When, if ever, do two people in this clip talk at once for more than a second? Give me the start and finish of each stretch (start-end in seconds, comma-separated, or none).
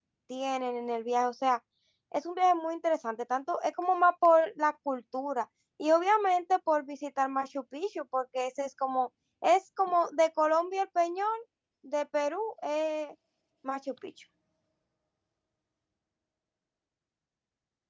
none